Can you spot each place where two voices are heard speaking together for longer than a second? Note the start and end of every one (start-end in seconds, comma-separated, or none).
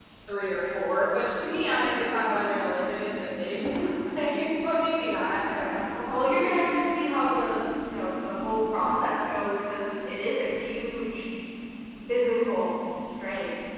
6.1-7.5